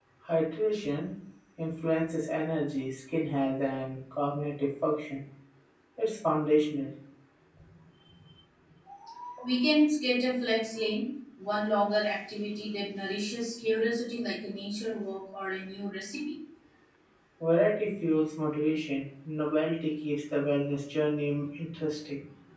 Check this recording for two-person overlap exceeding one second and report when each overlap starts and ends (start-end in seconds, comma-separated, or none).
none